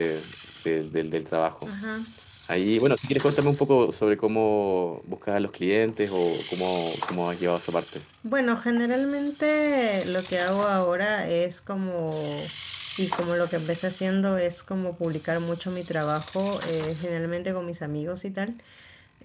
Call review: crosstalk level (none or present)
none